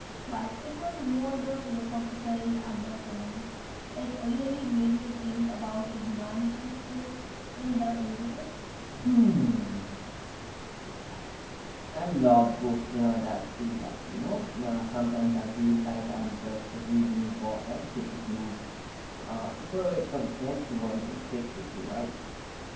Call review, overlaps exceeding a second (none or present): none